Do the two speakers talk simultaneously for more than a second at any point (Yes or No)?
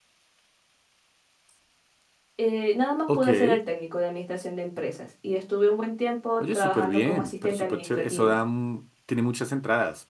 Yes